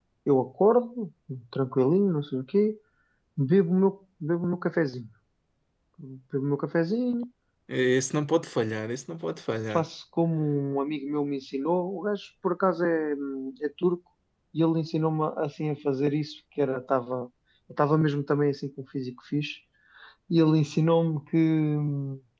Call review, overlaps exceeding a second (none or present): none